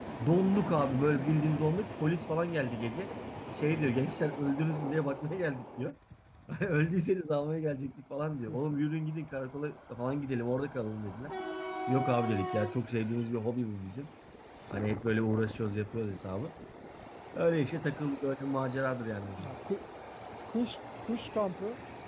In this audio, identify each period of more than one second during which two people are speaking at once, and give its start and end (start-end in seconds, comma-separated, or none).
none